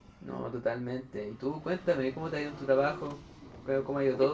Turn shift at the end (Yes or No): No